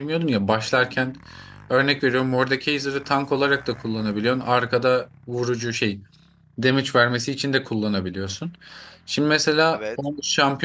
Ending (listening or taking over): listening